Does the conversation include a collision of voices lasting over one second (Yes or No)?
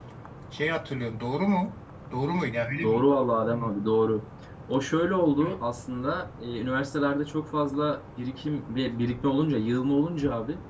No